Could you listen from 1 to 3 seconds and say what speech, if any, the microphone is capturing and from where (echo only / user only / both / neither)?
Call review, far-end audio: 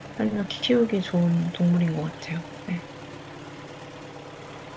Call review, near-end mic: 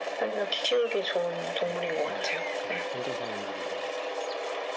both